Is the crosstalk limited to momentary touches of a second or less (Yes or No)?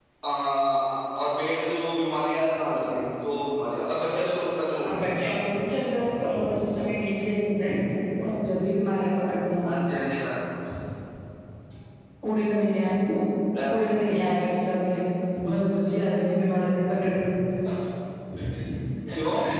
Yes